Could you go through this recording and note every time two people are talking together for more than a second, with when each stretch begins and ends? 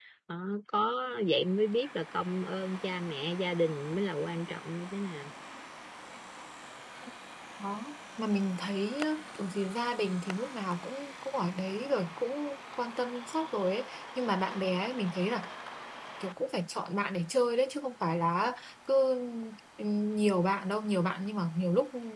none

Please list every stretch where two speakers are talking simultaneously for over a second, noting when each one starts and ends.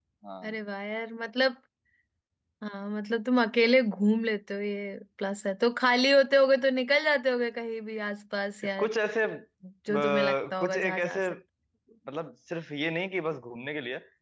9.9-11.3

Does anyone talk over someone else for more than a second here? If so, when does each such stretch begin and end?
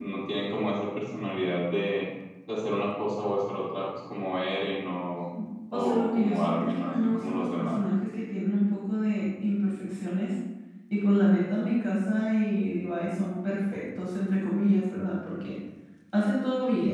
5.7-7.8

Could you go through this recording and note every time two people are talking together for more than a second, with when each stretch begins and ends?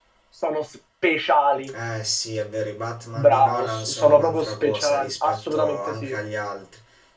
3.1-6.2

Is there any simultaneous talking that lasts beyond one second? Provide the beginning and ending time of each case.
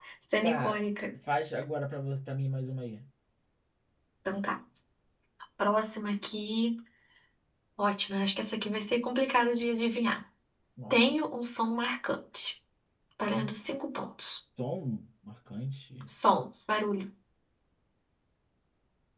none

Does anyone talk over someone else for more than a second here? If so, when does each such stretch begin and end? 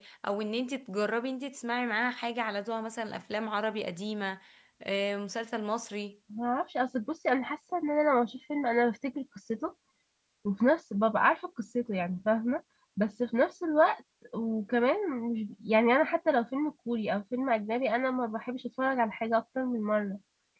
none

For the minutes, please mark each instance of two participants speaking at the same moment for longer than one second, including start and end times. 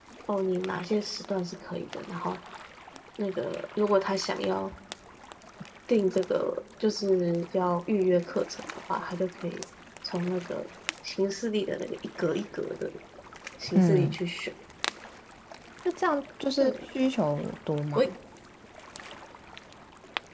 none

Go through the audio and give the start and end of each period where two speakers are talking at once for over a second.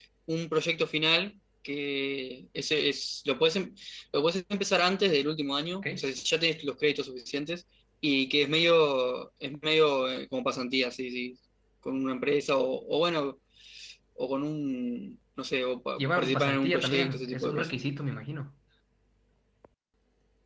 16.0-17.7

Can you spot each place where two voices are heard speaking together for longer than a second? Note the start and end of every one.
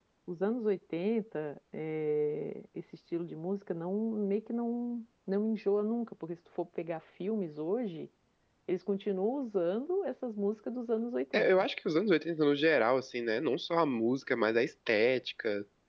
none

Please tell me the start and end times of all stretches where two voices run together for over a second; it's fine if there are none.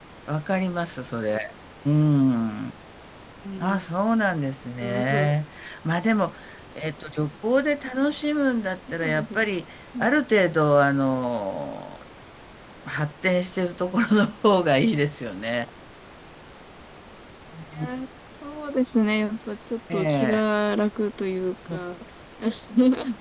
none

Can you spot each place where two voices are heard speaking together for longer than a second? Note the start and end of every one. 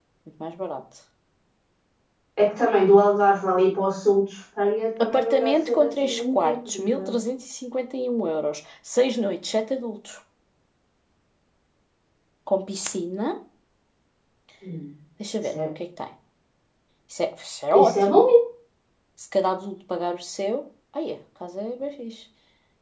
5.0-7.1

